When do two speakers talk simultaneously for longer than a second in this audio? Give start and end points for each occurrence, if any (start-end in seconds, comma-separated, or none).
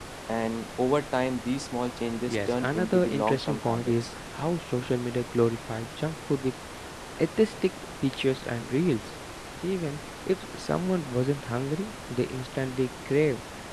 2.3-4.0